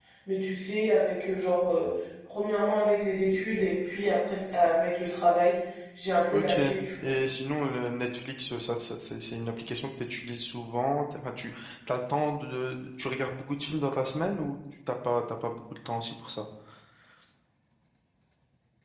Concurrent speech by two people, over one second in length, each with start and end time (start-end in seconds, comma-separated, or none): none